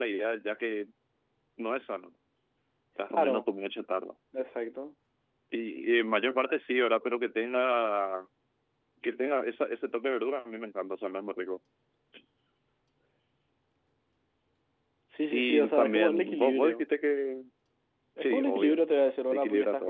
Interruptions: present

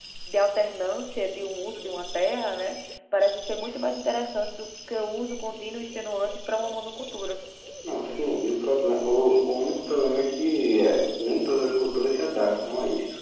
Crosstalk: none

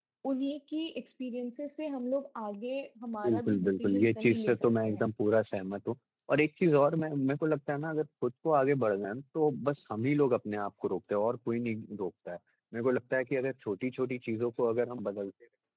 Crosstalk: present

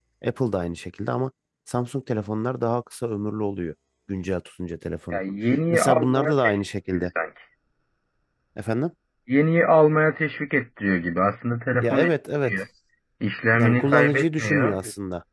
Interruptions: present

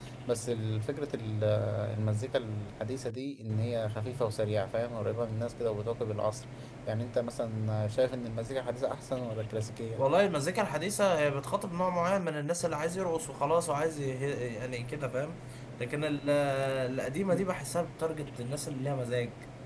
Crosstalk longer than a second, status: none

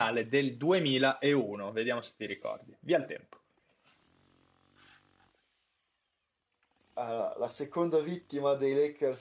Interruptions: none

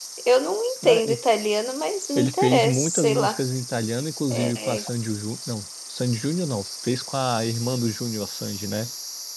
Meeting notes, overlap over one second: present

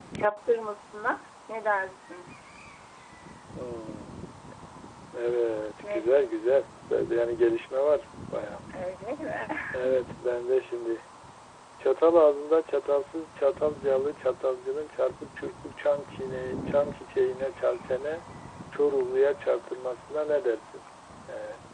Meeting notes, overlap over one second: none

